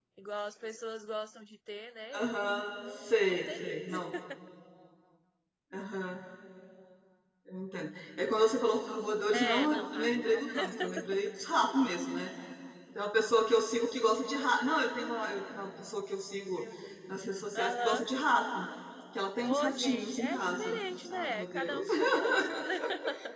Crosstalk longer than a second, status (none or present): present